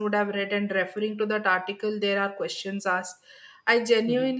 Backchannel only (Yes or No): Yes